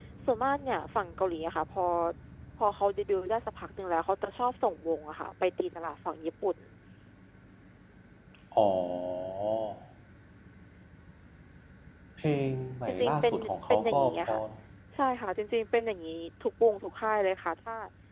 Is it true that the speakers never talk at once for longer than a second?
No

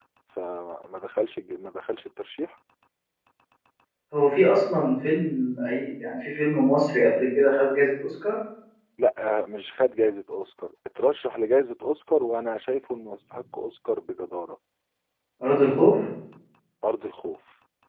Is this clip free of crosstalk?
Yes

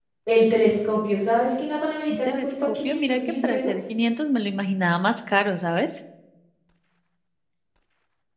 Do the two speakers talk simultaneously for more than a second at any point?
Yes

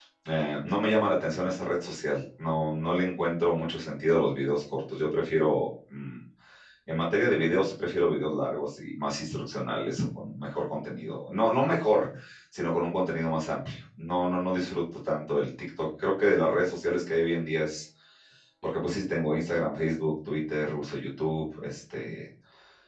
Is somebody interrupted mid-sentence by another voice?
No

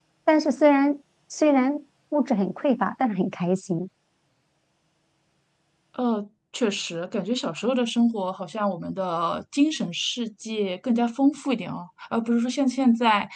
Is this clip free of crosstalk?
Yes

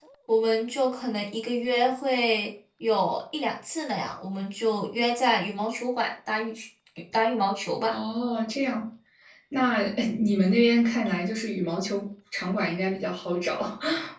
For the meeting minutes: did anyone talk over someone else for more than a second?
No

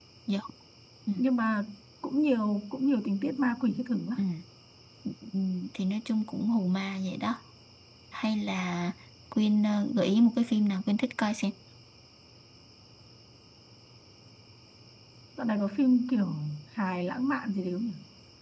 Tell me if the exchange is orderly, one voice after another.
Yes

